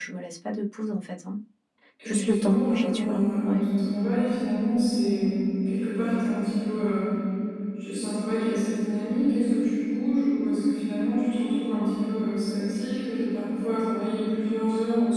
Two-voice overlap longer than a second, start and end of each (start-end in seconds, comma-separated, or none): 2.0-3.7